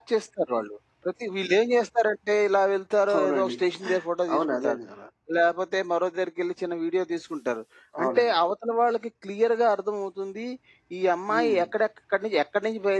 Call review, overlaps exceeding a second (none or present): none